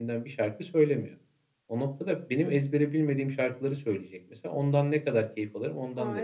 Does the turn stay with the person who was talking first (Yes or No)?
No